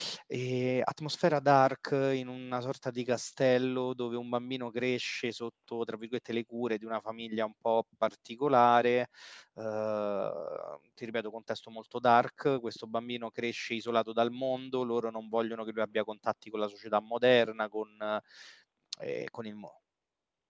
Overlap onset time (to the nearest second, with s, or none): none